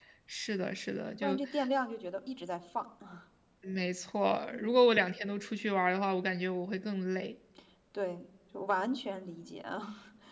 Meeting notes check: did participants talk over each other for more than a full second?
No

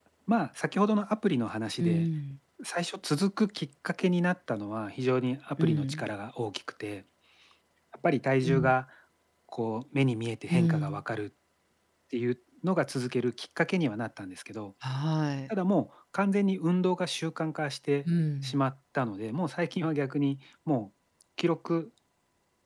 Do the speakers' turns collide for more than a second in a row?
No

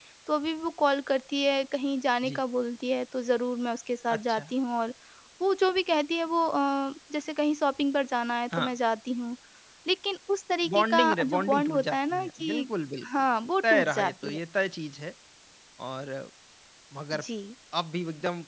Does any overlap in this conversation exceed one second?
Yes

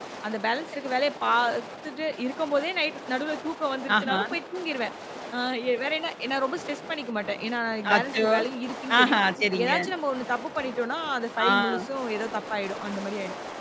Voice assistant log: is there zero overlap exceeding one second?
Yes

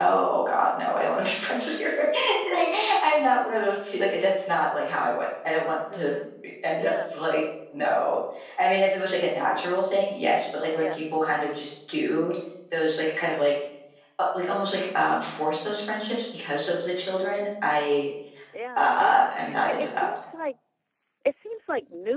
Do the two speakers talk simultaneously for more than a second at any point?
Yes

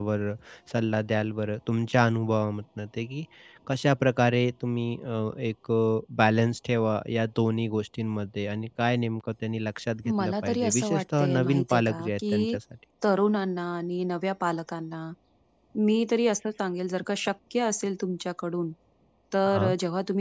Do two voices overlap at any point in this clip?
Yes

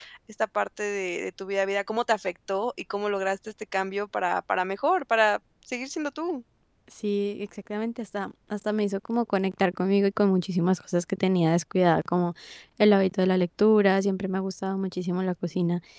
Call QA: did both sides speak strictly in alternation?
Yes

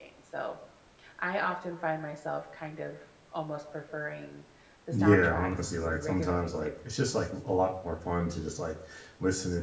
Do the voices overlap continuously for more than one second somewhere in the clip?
Yes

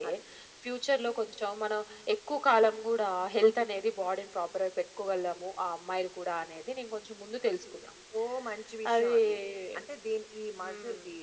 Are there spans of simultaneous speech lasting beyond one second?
No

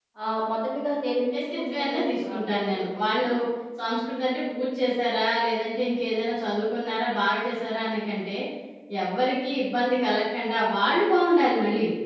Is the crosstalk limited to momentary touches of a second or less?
No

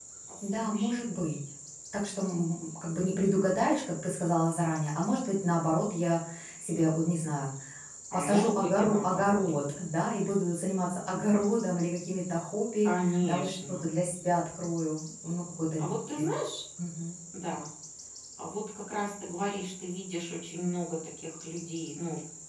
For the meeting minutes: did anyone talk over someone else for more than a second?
Yes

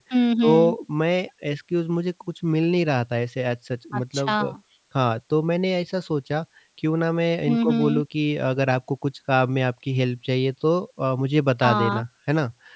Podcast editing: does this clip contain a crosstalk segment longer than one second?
No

